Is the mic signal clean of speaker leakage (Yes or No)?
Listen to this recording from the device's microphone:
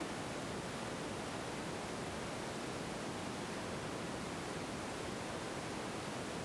Yes